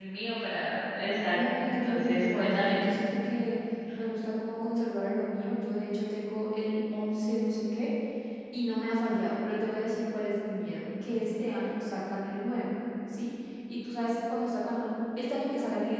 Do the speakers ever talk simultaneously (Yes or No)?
Yes